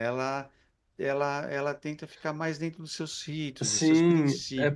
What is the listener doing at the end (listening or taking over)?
taking over